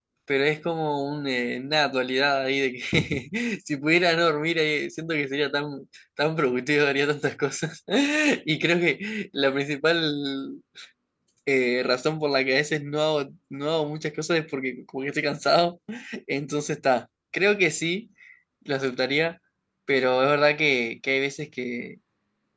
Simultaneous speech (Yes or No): No